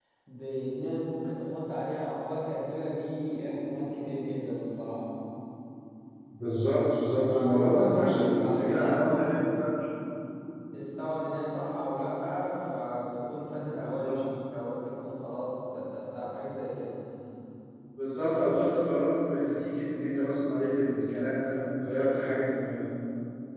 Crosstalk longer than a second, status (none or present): present